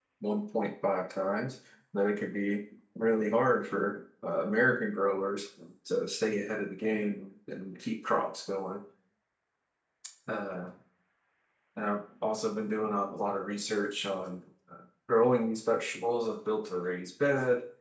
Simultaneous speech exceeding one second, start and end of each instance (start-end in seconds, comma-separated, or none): none